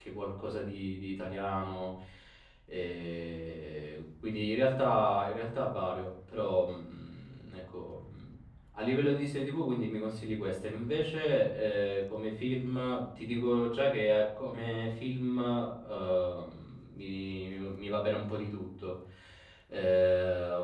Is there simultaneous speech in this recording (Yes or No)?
No